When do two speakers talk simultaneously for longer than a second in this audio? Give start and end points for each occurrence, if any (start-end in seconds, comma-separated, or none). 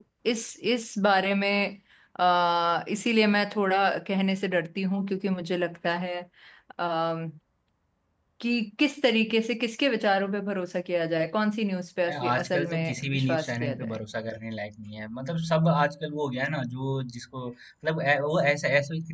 12.1-14.0